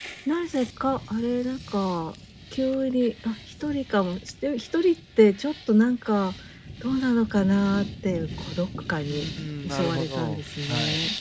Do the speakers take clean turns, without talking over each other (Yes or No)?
No